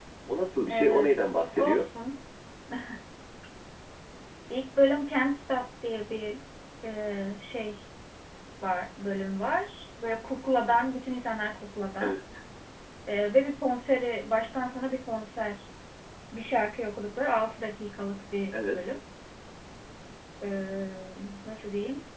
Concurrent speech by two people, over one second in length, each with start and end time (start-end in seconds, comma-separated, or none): 0.7-1.9